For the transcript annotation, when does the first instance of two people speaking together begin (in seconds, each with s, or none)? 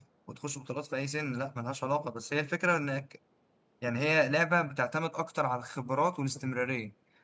none